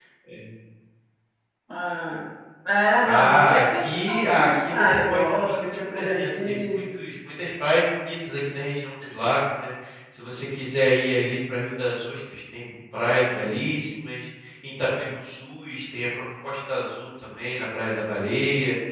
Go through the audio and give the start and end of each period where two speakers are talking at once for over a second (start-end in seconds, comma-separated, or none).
3.1-6.8